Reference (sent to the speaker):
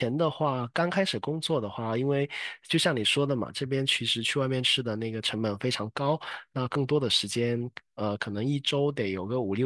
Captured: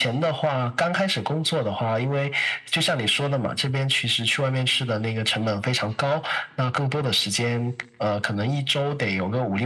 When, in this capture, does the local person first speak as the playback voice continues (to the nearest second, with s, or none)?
none